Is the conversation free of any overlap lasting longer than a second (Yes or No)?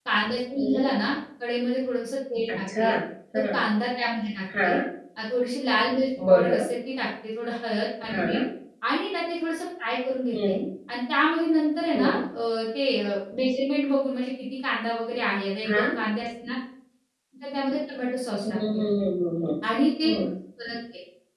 Yes